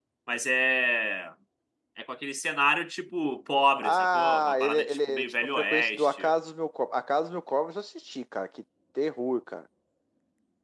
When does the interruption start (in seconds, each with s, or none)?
3.8 s